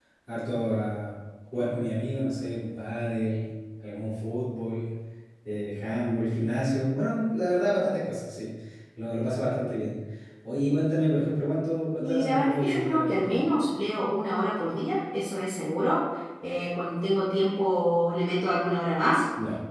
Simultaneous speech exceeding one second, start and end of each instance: 12.0-13.4

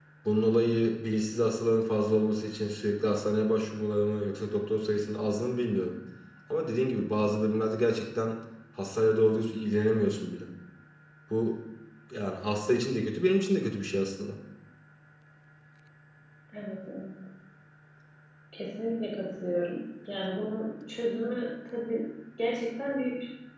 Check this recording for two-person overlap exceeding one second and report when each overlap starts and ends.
none

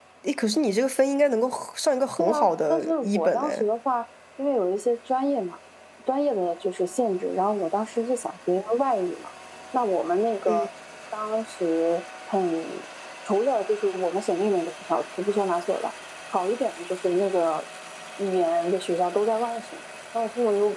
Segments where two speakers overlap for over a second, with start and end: 2.2-3.6

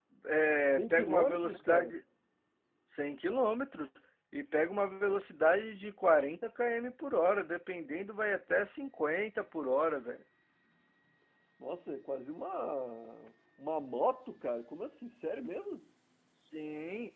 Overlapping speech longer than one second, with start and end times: 0.7-2.0

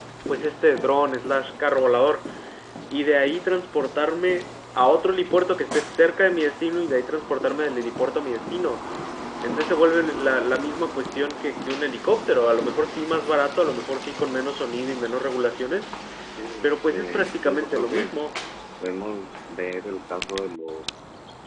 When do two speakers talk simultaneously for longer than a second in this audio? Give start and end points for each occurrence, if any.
16.6-18.1

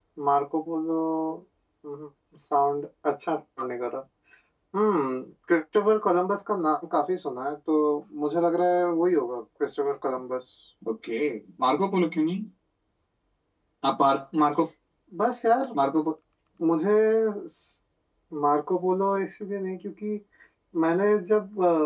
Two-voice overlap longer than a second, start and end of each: none

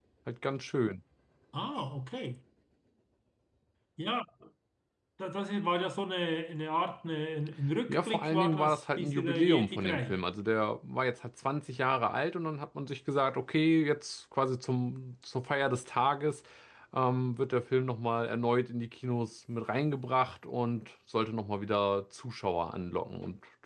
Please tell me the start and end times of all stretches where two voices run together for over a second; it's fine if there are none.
7.9-10.2

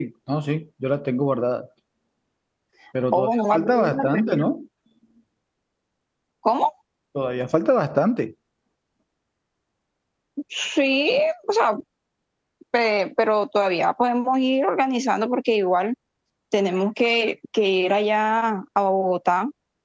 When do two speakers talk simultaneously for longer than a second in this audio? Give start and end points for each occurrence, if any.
3.1-4.5

